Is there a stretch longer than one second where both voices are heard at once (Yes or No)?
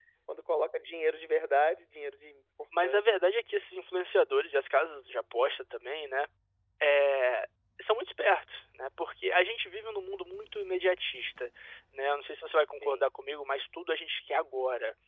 No